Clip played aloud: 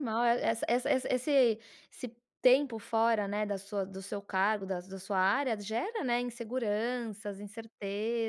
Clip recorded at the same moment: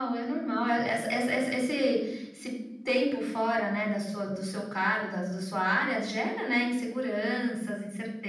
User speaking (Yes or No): No